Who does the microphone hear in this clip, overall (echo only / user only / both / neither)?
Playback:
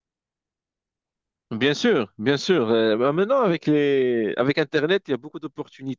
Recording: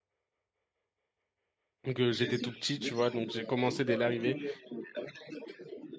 both